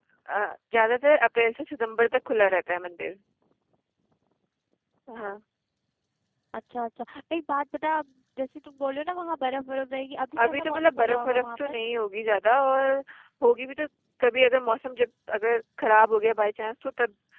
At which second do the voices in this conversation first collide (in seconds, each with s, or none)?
10.4 s